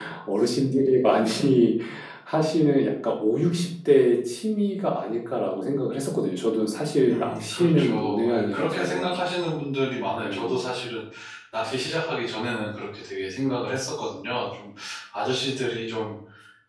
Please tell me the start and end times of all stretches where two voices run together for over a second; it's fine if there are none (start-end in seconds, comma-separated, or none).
7.1-9.2